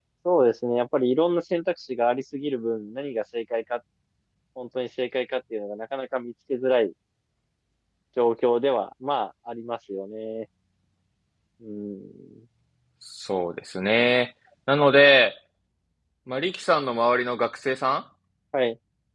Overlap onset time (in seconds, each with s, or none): none